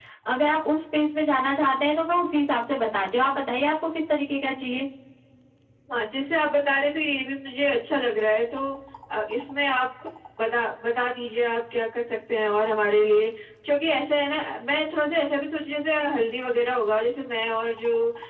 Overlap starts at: none

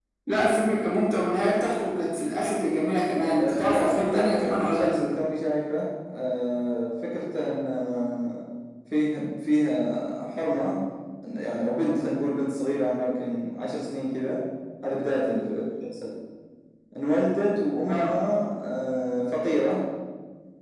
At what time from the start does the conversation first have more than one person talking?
3.3 s

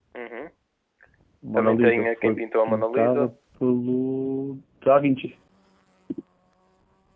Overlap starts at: 1.5 s

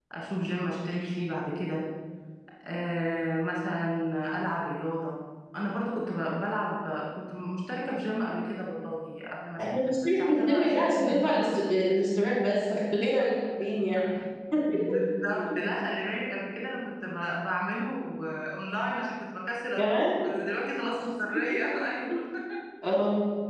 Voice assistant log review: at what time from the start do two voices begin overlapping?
9.6 s

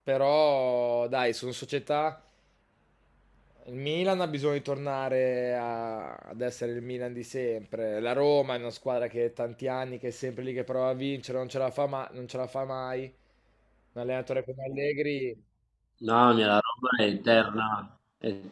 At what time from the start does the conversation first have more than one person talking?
none

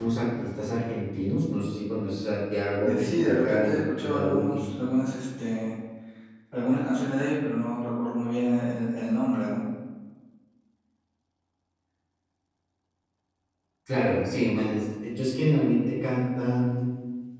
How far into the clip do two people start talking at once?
2.8 s

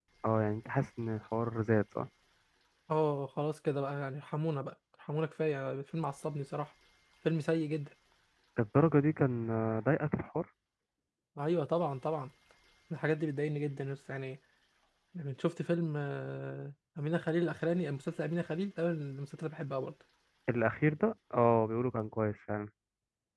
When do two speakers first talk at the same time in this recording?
none

